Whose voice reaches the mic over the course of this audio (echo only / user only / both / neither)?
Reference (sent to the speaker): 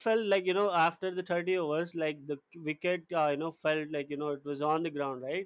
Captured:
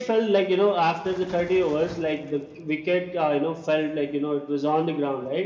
echo only